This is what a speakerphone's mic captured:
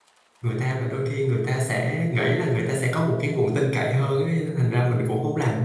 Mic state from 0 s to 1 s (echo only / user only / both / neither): user only